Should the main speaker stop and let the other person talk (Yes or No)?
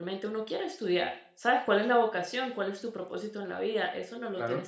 No